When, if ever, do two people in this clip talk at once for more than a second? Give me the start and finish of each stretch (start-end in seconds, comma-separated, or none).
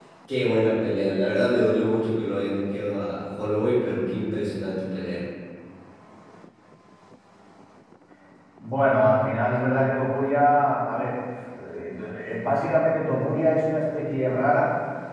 none